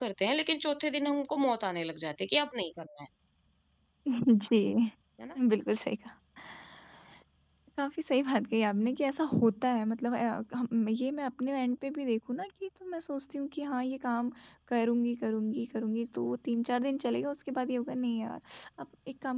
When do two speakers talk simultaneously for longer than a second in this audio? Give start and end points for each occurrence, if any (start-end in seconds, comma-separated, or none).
none